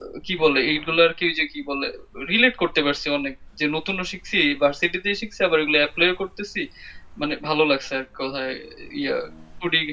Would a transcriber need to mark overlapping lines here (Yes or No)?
No